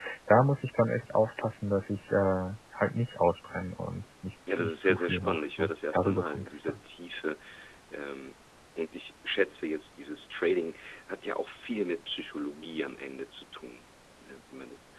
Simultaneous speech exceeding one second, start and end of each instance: 4.6-6.8

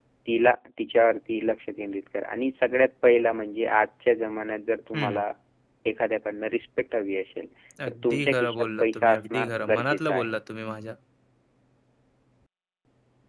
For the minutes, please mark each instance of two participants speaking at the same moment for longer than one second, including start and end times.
7.9-10.4

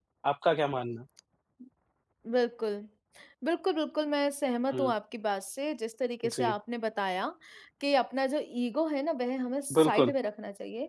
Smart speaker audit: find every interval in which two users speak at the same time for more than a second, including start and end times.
none

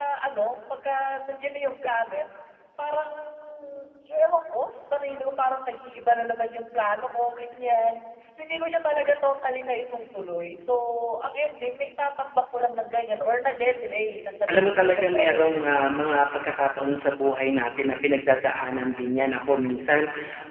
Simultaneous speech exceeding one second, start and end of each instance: 14.5-15.7

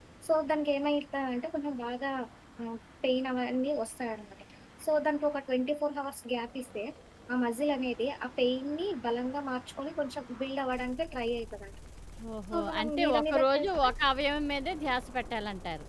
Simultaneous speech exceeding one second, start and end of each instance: 12.5-13.9

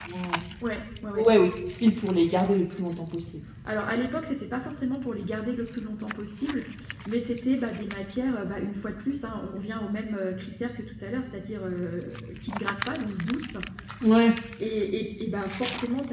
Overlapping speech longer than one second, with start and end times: none

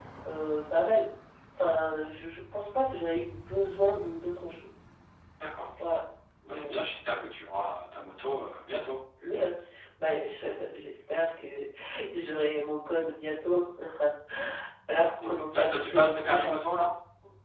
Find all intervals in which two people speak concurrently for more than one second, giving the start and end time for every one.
15.2-16.6

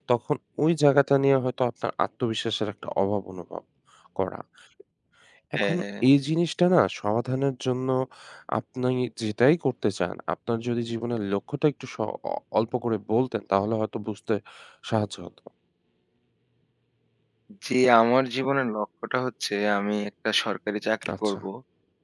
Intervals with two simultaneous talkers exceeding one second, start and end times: none

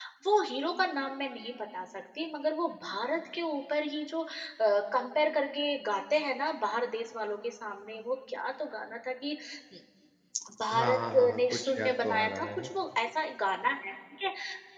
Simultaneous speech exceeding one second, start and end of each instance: 10.8-12.7

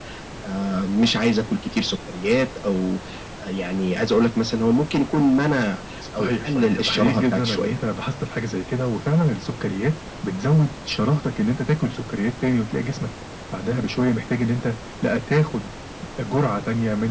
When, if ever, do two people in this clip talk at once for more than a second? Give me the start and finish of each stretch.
6.2-7.7

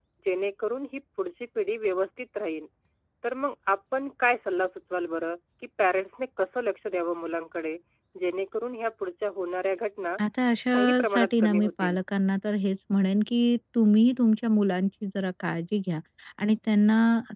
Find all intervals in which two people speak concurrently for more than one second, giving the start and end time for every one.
10.7-12.0

